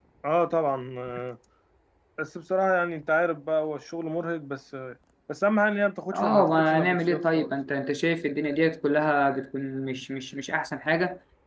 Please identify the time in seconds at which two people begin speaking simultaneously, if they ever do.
6 s

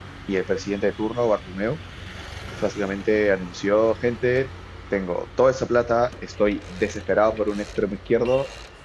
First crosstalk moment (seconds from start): none

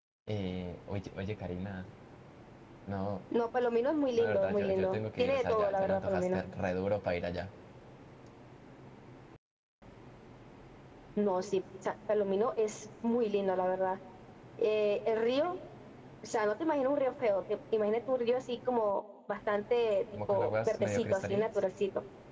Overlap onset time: 4 s

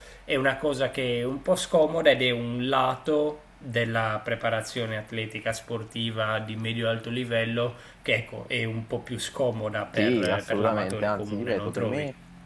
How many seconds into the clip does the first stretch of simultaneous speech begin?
10 s

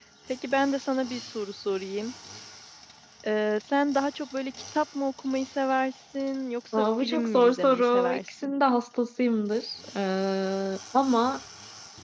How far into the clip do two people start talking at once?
7 s

